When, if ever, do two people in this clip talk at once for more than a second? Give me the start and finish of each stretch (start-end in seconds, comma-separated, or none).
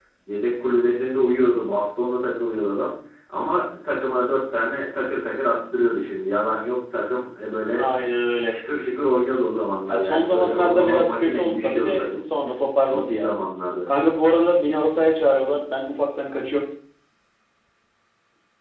9.8-12.2